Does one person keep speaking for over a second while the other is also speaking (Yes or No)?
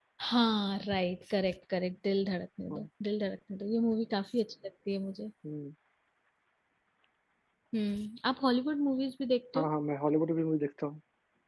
No